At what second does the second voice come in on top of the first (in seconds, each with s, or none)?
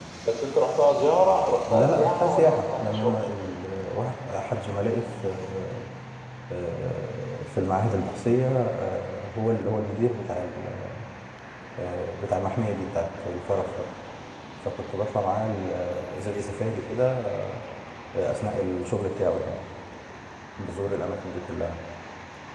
1.7 s